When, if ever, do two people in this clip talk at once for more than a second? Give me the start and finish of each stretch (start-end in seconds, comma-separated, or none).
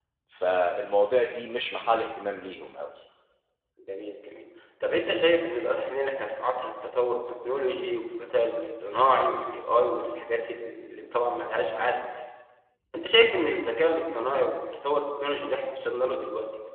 none